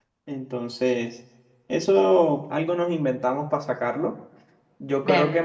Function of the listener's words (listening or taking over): listening